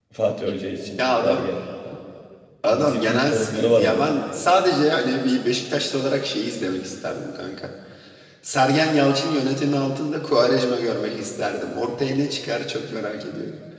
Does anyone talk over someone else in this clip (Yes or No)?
Yes